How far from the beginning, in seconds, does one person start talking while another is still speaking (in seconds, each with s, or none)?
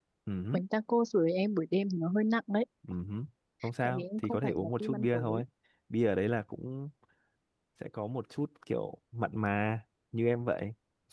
3.9 s